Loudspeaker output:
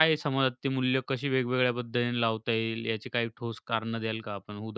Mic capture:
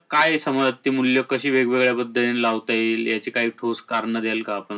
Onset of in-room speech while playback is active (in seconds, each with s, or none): none